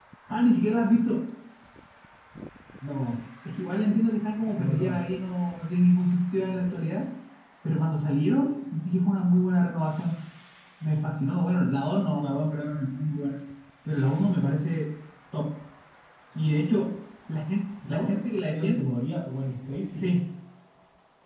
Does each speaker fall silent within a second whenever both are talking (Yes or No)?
Yes